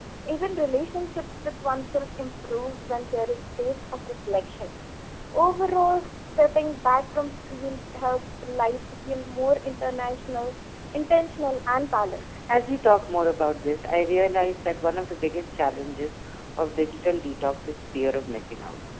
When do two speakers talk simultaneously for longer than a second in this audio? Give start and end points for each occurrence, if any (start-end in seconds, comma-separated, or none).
none